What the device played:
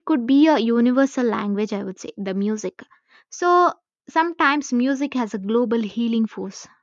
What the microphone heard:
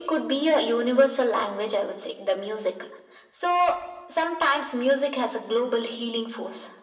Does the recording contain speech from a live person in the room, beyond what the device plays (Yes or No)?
No